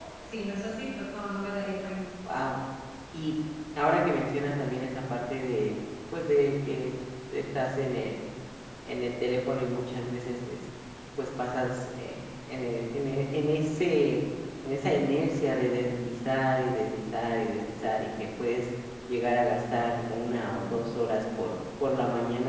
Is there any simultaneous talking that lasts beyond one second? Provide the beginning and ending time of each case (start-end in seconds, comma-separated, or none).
none